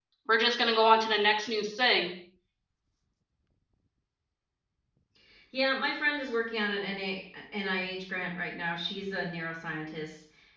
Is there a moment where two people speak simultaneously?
No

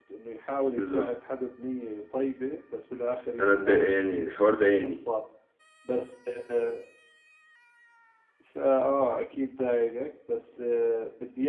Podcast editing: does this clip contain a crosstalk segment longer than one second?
No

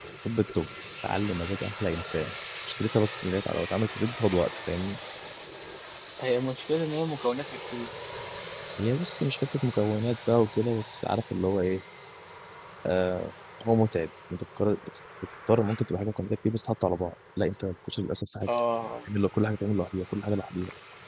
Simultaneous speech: No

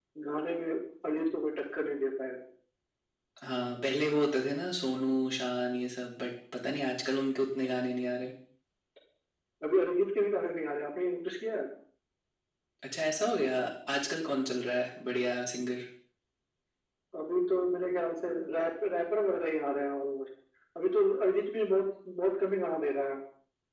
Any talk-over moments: No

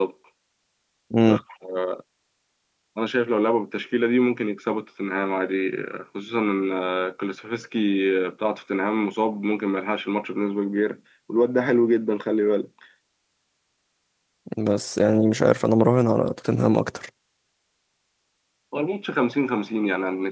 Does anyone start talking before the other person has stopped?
No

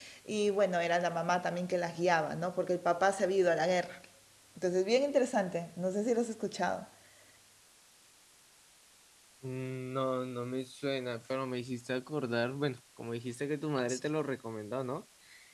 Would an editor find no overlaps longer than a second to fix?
Yes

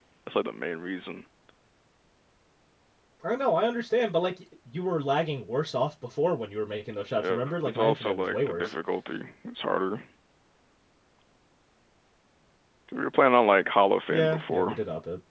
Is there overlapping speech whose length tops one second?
Yes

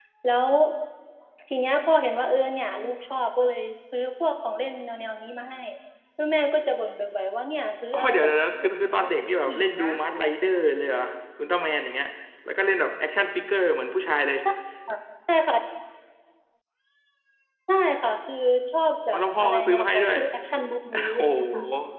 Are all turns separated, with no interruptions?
No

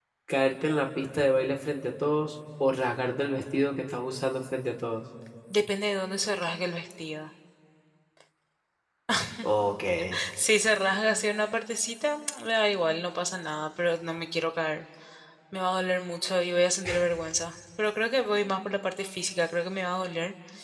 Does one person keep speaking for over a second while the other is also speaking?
No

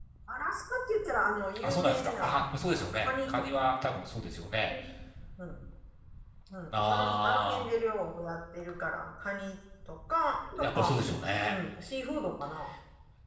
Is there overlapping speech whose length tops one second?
Yes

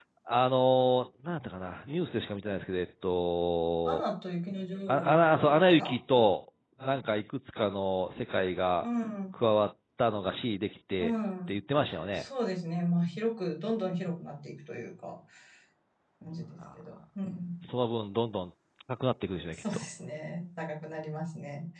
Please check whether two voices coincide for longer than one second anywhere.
No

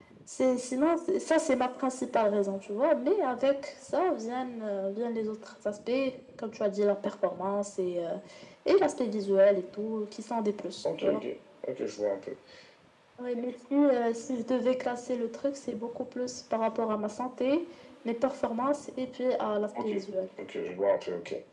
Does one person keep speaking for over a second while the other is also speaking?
No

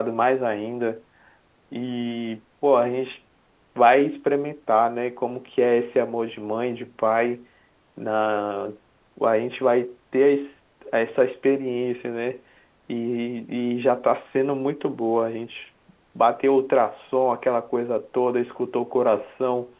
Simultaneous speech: No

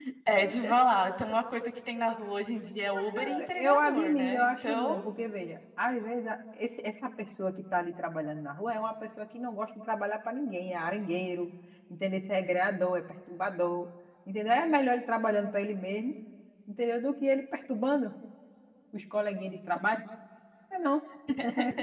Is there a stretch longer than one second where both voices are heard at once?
Yes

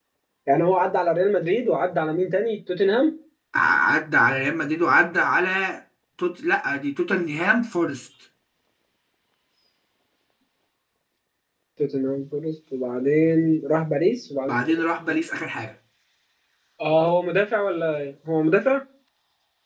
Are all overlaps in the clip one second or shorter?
Yes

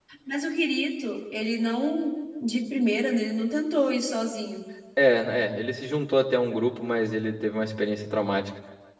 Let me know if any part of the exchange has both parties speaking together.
No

